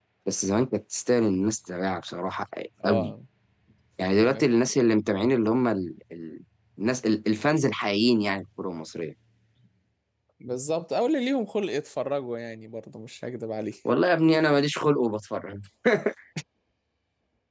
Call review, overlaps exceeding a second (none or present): none